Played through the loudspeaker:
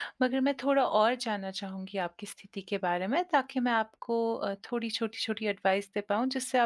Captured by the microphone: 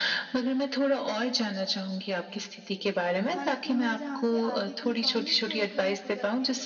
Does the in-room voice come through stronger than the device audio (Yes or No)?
No